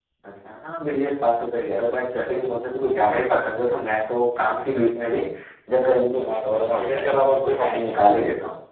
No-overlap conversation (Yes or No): No